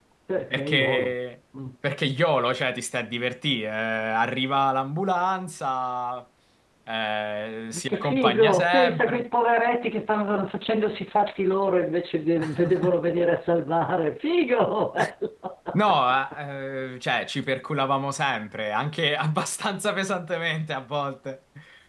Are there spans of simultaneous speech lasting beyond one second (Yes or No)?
Yes